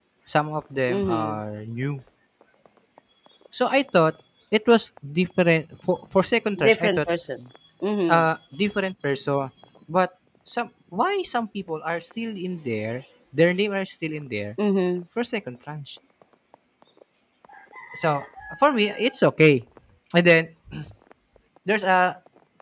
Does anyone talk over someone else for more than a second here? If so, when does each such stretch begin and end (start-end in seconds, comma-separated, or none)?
none